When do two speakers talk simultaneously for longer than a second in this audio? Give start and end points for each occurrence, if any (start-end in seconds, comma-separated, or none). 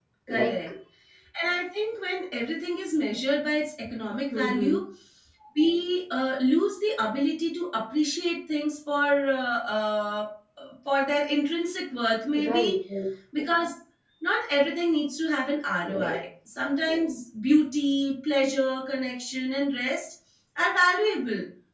none